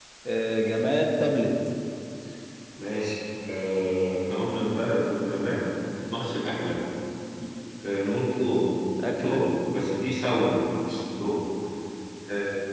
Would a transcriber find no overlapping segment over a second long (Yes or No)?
Yes